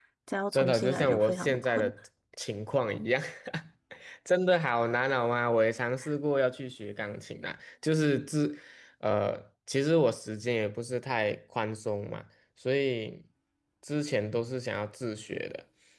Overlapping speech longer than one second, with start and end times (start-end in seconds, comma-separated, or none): 0.5-1.9